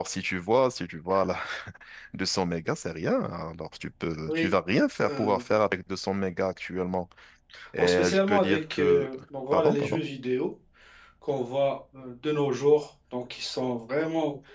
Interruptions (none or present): present